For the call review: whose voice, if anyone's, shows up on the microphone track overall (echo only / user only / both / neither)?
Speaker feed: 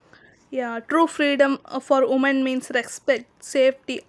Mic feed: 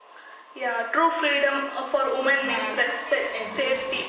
both